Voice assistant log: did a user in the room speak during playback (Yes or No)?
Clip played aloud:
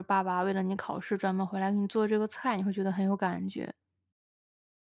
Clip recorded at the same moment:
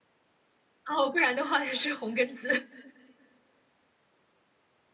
Yes